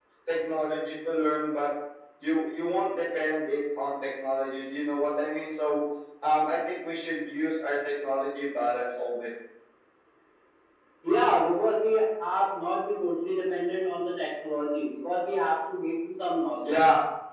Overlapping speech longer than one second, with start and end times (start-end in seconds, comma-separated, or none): none